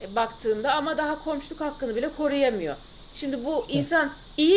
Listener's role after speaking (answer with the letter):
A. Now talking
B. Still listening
B